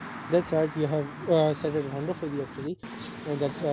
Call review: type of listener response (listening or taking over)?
listening